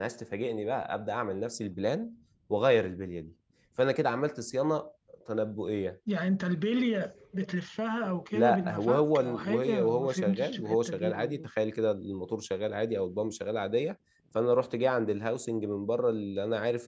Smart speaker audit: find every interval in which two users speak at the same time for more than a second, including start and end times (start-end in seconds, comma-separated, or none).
8.3-11.5